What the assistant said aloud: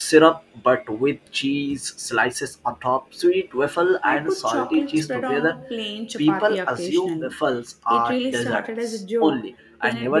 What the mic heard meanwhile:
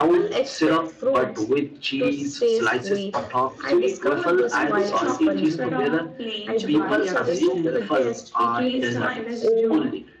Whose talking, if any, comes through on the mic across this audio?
both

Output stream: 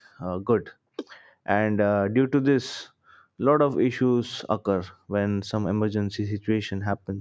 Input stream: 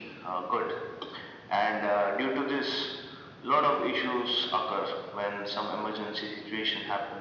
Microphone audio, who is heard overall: echo only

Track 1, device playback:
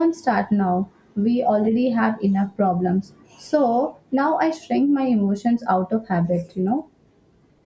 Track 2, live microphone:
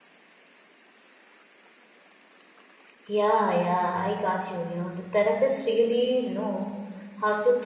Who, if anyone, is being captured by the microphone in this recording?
user only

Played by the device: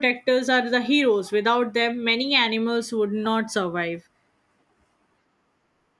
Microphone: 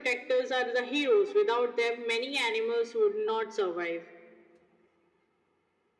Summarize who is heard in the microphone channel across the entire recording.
echo only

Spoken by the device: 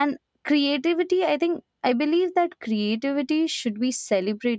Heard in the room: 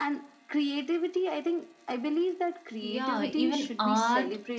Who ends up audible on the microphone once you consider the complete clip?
both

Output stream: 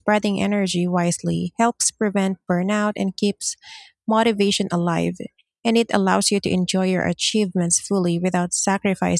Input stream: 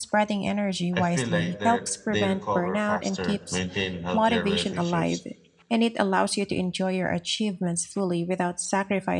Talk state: both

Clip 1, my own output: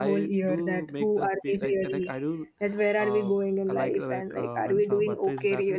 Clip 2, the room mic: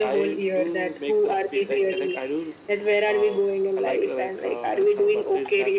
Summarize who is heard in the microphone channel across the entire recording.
echo only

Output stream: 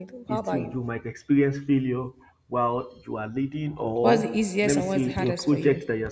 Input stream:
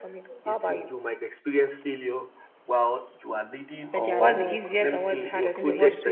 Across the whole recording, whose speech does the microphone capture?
both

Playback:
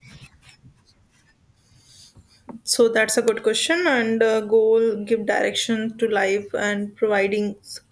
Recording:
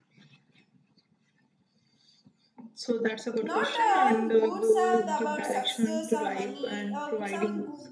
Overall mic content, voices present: both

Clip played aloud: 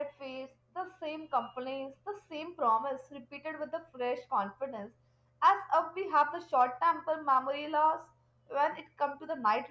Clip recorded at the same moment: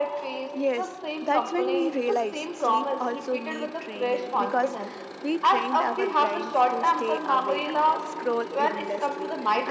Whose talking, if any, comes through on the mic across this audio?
both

